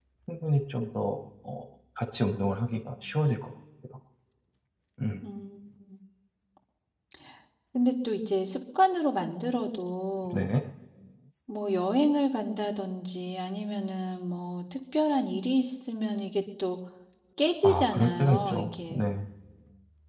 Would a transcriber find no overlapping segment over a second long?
No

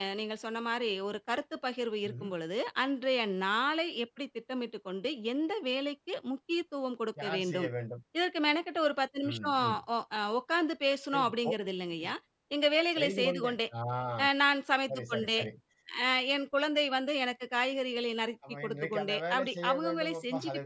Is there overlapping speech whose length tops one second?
Yes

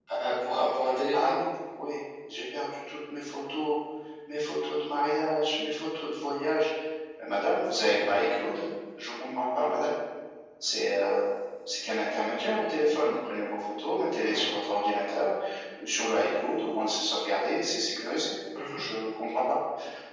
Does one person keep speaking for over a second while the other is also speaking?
No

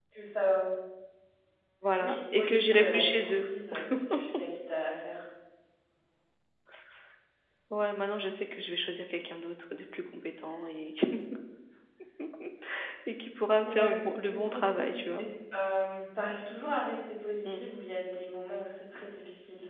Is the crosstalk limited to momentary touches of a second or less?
No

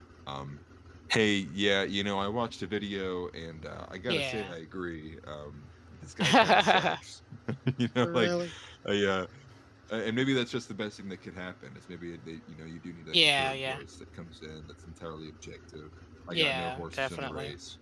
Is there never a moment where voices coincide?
No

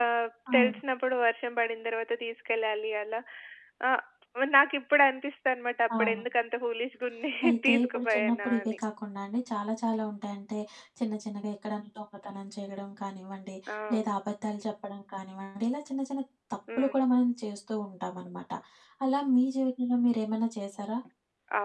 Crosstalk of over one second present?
Yes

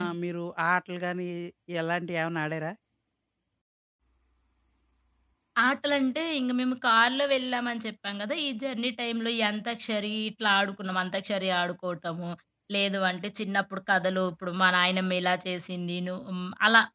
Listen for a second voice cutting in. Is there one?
No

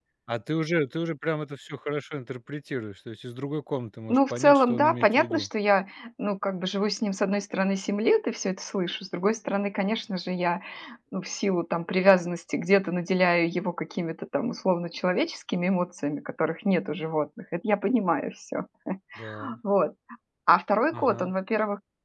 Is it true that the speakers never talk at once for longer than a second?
No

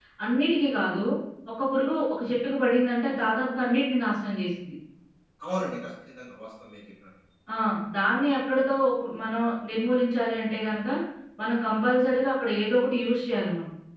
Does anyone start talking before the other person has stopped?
No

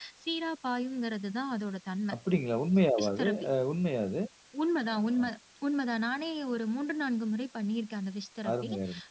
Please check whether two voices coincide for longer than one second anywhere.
No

